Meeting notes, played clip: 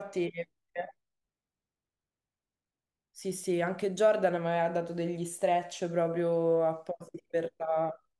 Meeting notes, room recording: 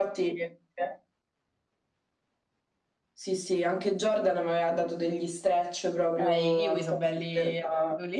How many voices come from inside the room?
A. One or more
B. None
A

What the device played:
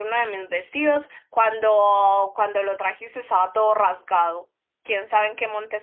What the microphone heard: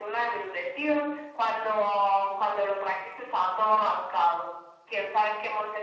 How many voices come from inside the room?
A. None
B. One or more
A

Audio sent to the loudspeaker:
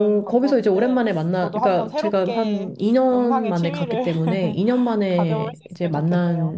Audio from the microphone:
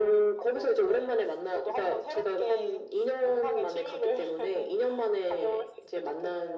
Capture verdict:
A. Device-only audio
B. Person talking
A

